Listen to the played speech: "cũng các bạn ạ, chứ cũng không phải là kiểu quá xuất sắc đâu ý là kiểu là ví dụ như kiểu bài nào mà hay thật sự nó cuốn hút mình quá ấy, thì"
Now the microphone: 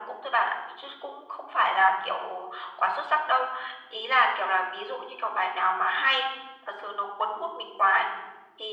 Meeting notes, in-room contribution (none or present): none